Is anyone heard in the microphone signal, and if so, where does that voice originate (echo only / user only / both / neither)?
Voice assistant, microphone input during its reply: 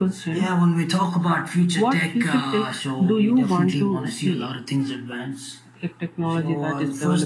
echo only